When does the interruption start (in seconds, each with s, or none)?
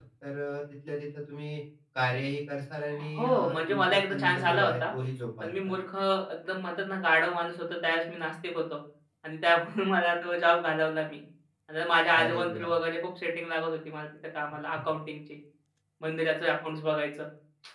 3.2 s